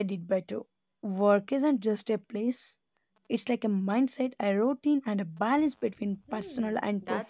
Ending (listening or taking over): taking over